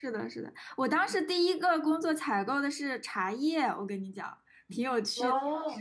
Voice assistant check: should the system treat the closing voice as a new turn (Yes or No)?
No